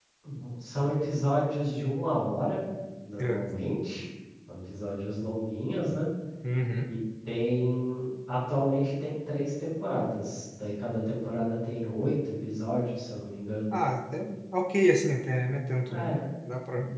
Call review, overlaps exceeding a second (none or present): none